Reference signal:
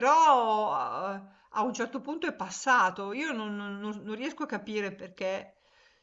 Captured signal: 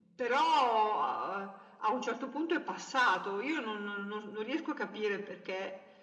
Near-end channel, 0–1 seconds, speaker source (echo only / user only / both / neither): echo only